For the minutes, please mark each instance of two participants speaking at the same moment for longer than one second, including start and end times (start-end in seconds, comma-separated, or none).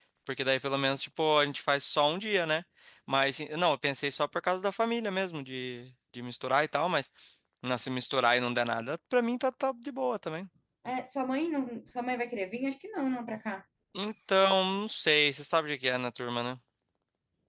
none